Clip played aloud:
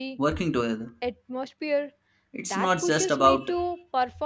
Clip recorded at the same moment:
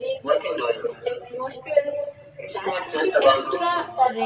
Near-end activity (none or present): present